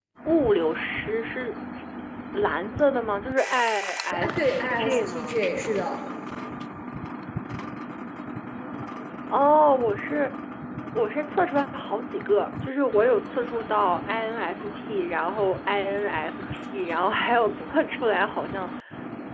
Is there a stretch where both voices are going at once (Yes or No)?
Yes